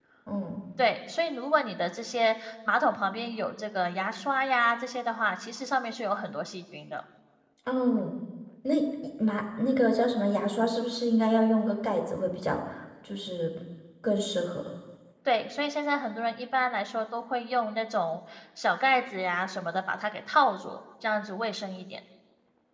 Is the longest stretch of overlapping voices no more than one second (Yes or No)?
Yes